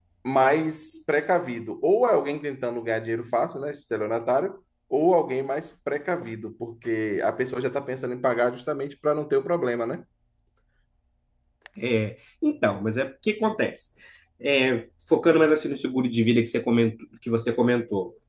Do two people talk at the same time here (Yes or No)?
No